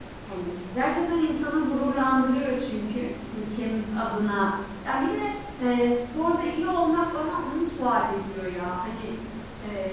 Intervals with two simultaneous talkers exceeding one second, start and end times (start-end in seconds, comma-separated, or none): none